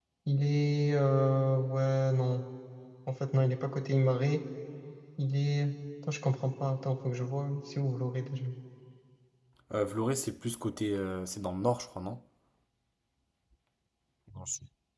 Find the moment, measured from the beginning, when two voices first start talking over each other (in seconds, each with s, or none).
none